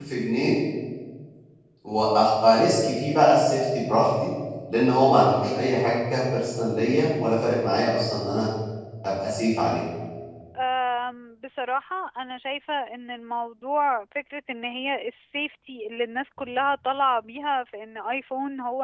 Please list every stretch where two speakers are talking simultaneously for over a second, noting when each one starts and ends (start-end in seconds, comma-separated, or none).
none